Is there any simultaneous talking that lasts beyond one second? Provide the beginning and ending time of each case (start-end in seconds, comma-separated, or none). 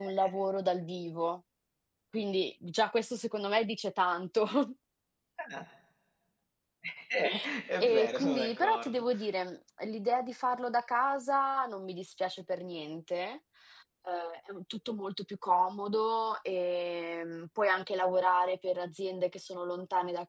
7.8-9.0